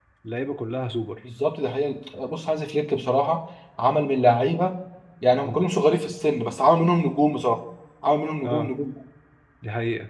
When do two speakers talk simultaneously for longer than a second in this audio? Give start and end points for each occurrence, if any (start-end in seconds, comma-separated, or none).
none